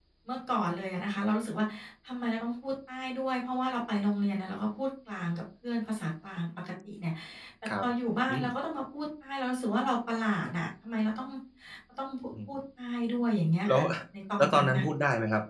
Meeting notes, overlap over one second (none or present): none